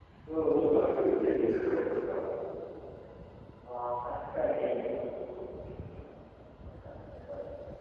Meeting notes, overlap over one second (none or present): present